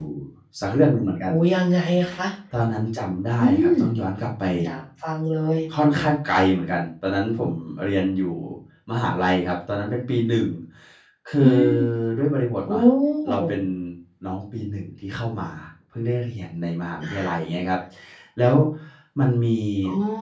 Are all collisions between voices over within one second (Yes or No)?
Yes